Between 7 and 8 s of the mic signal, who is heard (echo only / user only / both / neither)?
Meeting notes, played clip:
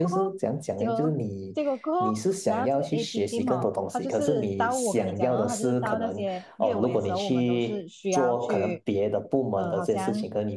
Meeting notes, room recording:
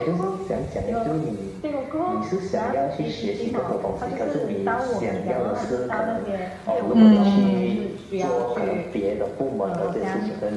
both